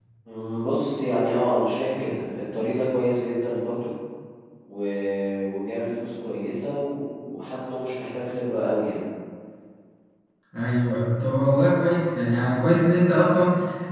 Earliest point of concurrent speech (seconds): none

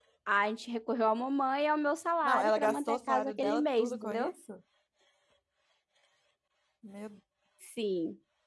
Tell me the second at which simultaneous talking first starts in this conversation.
2.2 s

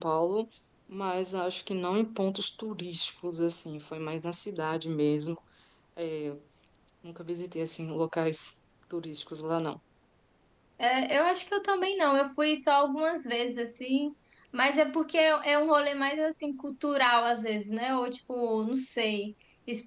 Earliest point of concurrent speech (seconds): none

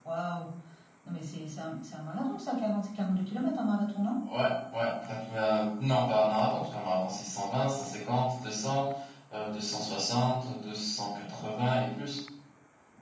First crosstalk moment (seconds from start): none

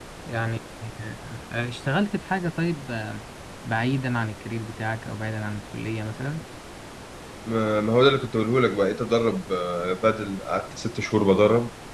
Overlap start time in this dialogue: none

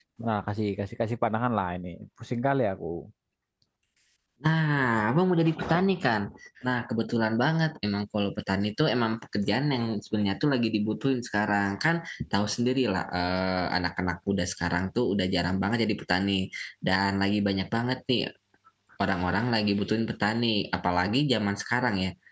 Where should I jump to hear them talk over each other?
none

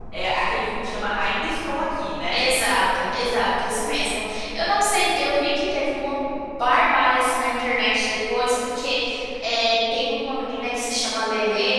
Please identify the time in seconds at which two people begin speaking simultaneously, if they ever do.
none

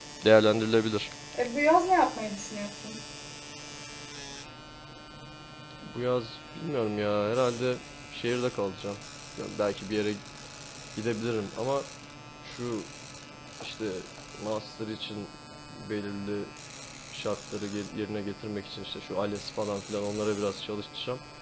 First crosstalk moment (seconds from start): none

